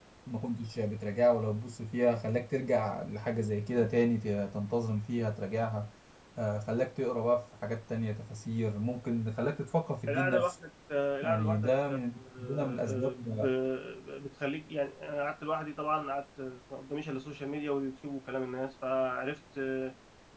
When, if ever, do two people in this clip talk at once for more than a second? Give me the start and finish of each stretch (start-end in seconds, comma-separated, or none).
11.2-13.3